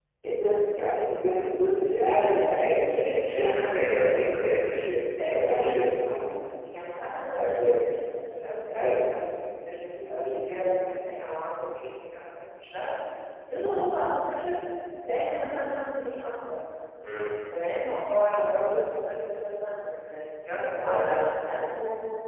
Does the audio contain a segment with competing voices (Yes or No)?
Yes